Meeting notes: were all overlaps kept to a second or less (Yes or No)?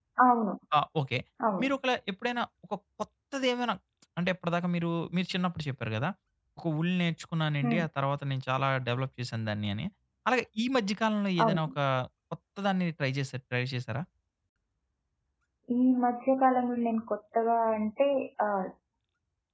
Yes